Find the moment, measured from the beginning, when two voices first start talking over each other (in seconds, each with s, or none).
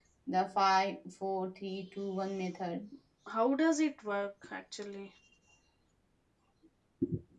none